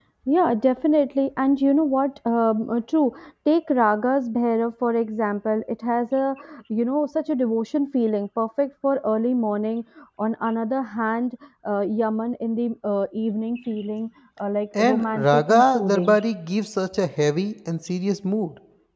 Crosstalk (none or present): present